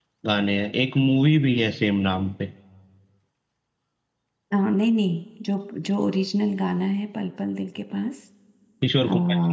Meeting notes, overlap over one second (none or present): none